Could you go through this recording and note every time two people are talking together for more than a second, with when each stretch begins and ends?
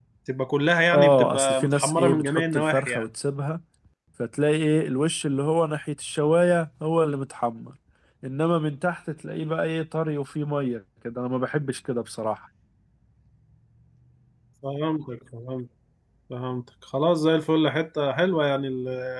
0.9-3.0

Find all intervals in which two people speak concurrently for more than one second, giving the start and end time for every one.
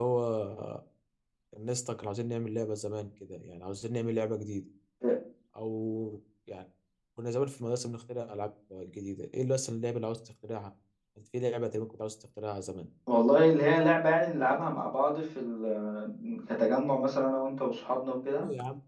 none

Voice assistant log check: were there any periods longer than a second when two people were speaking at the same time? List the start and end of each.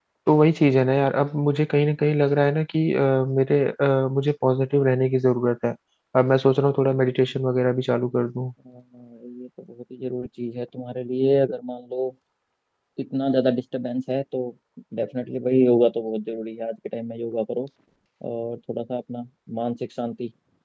none

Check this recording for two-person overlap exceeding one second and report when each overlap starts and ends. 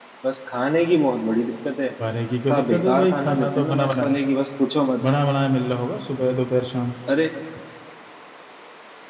2.5-4.2

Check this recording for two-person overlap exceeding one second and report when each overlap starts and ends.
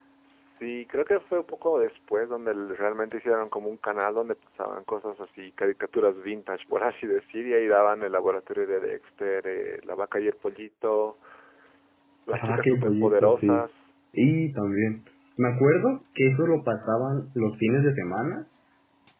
12.3-13.7

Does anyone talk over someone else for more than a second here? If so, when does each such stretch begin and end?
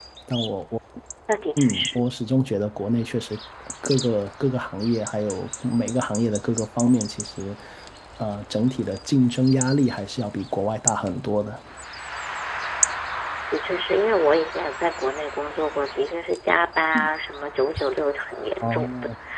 none

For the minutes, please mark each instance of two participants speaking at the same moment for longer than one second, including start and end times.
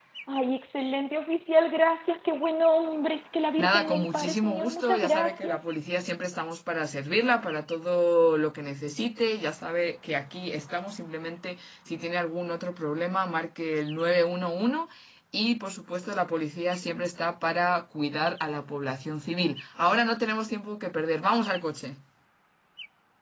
3.6-5.6

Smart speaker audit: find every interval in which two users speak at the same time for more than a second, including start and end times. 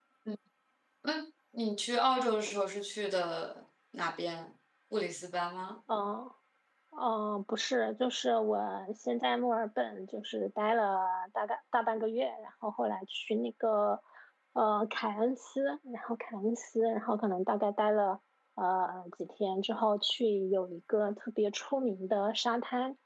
none

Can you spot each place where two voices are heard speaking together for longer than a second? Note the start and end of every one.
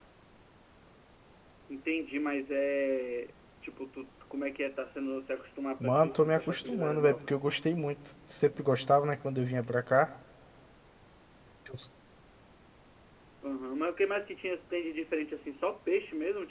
5.8-7.3

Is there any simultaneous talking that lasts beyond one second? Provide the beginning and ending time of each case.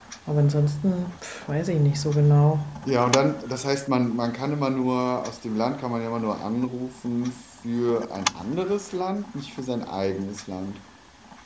none

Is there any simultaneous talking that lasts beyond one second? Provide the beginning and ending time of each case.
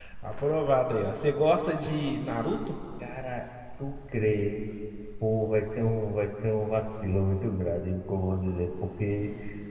none

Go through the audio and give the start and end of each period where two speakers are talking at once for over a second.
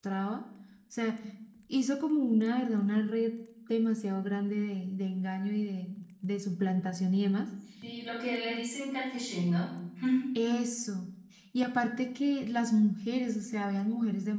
none

